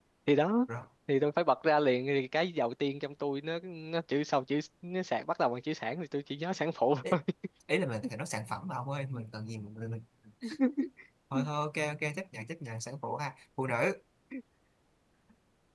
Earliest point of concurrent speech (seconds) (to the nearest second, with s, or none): none